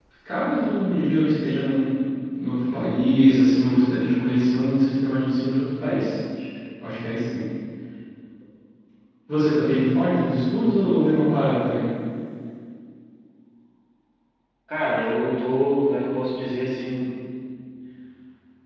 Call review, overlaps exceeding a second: none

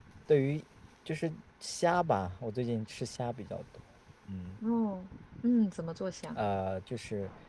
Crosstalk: none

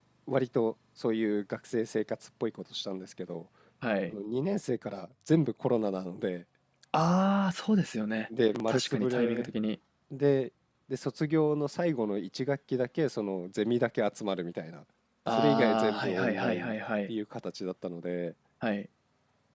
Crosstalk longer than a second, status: present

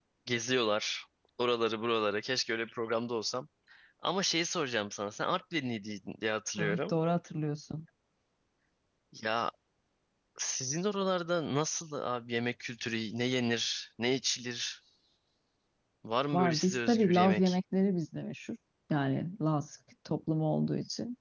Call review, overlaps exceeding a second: present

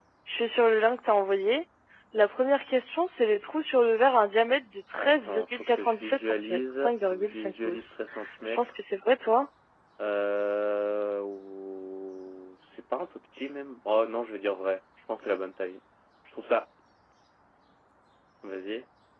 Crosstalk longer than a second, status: present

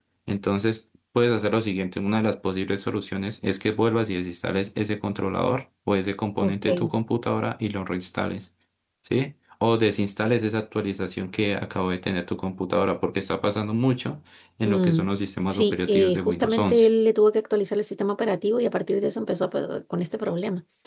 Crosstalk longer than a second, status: present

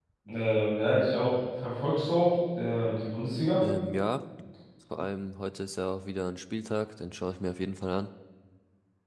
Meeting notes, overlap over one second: none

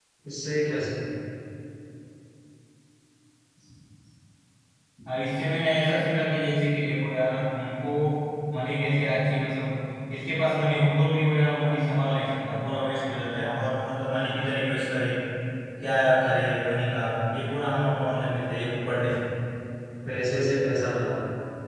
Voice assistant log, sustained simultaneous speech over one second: none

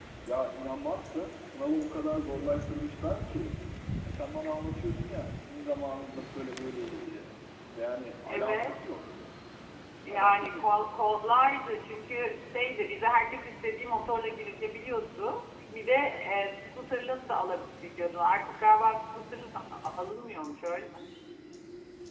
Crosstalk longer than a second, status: none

